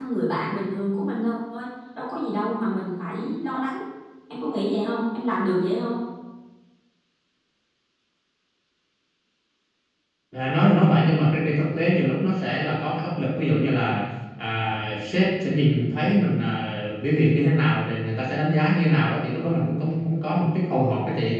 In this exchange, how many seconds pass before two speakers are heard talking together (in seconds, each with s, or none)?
none